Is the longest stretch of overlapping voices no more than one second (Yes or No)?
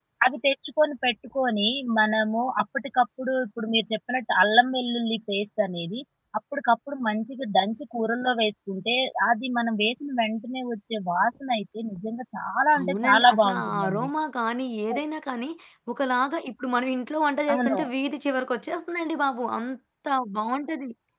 No